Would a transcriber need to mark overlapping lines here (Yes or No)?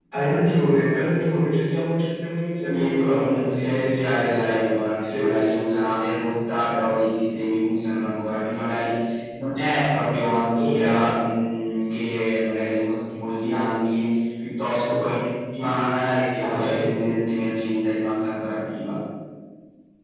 Yes